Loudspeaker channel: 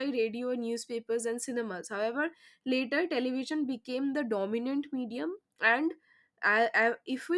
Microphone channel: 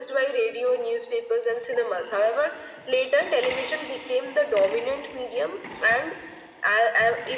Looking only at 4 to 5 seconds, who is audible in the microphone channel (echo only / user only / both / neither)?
echo only